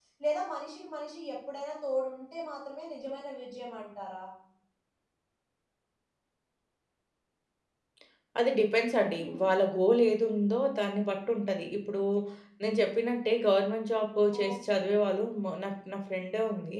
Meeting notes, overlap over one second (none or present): none